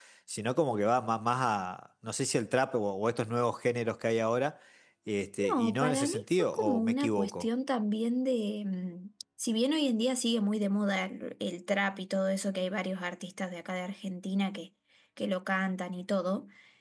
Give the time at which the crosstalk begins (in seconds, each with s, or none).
5.5 s